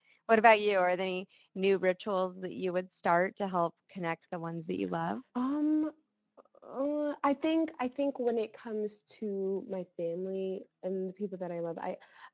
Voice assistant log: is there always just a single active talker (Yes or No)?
Yes